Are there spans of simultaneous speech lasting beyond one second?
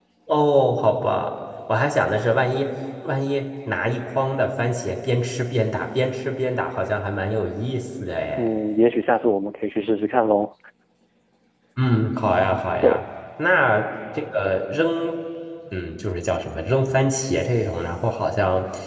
No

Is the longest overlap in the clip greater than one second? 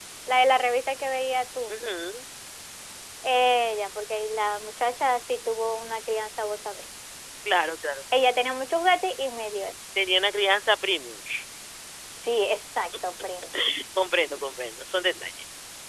No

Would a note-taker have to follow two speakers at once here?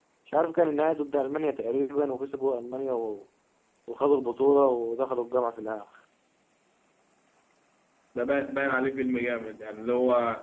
No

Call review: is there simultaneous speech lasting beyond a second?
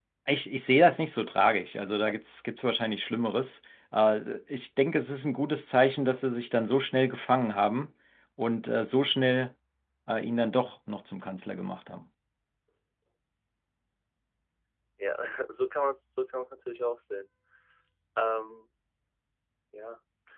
No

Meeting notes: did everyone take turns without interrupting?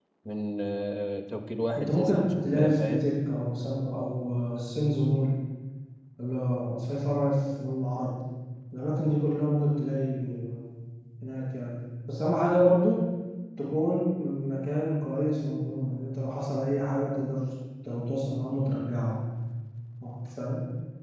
No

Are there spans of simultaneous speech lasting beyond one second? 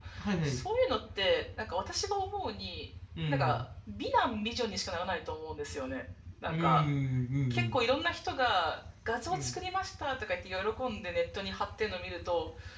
No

